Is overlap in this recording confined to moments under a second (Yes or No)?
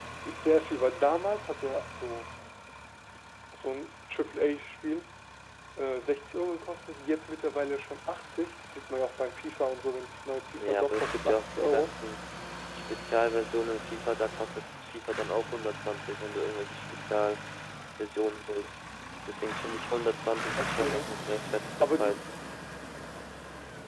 No